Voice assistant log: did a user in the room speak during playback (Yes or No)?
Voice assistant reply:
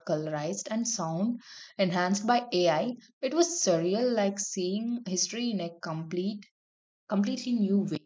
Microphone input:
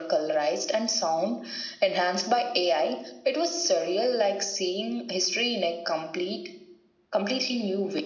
No